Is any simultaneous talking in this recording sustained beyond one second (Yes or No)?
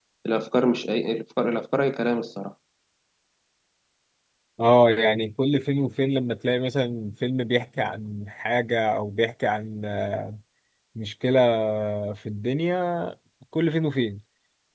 No